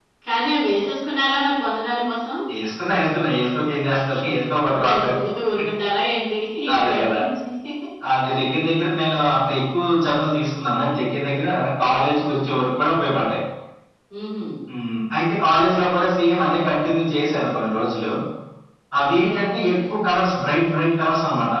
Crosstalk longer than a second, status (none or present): none